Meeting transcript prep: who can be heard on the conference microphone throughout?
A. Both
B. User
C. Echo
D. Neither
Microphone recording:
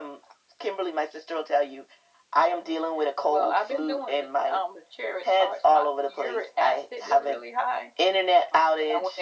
C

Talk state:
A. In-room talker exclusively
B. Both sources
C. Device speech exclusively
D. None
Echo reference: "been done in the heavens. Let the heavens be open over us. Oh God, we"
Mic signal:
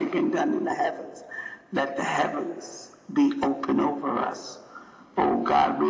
C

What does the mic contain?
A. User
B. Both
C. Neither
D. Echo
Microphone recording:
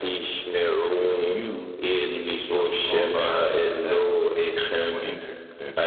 B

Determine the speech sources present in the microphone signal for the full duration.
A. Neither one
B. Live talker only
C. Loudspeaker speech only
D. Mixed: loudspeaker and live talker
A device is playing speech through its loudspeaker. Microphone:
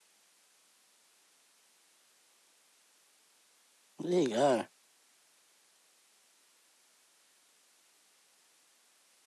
B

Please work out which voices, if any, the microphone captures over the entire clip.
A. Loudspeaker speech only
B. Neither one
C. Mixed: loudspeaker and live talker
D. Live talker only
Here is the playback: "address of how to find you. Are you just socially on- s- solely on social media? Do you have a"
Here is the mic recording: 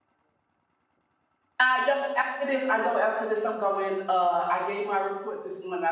D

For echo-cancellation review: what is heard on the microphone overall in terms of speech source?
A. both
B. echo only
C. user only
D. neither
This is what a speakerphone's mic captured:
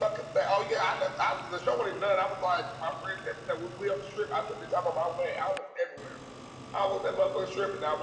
B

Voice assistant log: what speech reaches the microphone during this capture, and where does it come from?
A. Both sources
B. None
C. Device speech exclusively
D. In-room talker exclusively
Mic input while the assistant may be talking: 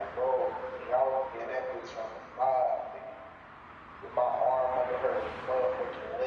C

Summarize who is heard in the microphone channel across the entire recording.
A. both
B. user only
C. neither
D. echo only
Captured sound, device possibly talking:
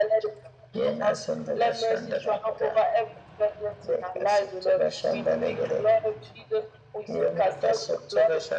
D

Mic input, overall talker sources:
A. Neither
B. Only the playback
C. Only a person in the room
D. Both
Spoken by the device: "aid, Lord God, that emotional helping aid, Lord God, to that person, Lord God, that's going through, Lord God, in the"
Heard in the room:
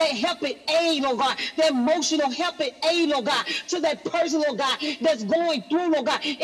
B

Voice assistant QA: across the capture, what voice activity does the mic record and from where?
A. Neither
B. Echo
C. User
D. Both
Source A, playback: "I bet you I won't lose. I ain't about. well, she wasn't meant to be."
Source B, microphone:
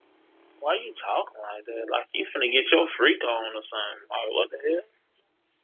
C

